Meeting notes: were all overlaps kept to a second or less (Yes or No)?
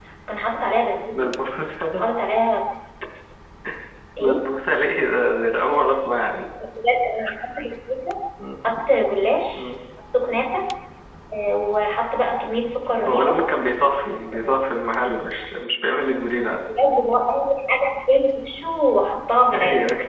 Yes